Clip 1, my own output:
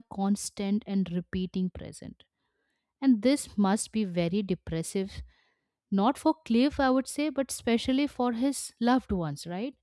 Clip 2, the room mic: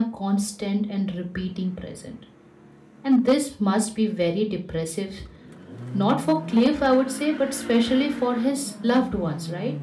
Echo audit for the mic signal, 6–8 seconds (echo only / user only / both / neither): echo only